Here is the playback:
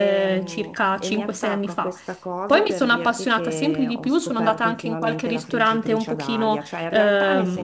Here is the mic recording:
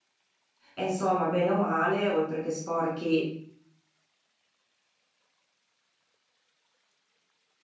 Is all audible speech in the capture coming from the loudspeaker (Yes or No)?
No